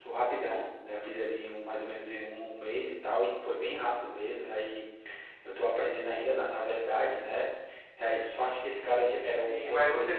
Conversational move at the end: taking over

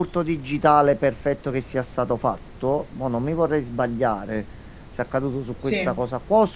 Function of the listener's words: listening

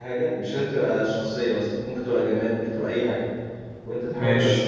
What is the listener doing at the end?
listening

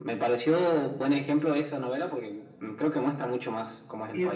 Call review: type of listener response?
taking over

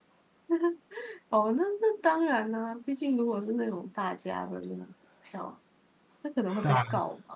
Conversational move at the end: listening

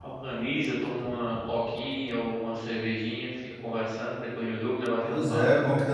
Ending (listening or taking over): taking over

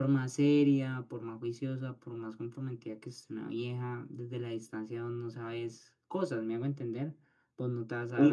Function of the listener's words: taking over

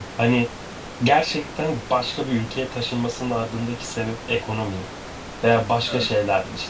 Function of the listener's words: listening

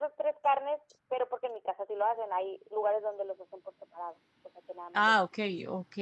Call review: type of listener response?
taking over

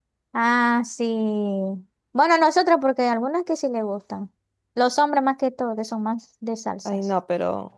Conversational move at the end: taking over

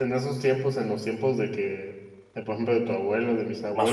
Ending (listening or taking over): listening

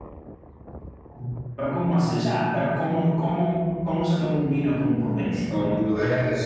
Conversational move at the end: taking over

